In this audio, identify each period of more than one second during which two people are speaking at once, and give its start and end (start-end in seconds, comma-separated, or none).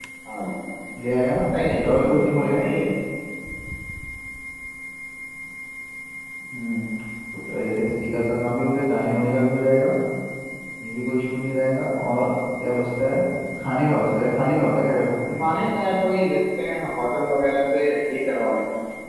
1.5-2.7